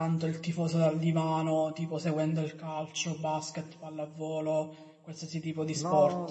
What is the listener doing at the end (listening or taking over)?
taking over